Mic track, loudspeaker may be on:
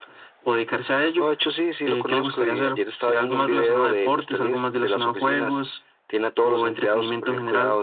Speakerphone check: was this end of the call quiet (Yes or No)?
Yes